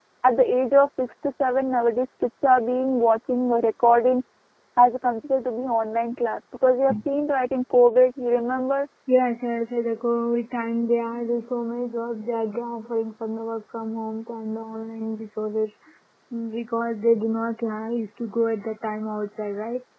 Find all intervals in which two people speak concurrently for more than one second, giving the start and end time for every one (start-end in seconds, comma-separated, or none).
none